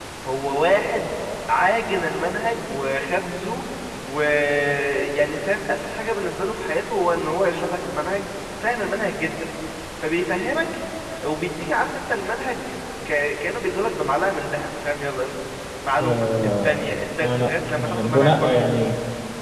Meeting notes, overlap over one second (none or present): present